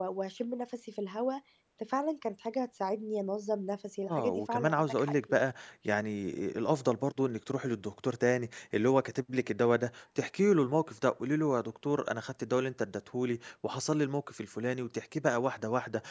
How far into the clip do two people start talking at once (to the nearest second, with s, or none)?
4 s